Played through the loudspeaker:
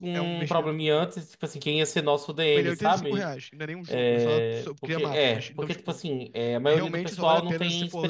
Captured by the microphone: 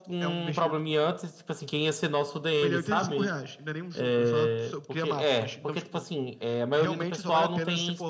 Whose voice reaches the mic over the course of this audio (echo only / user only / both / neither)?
echo only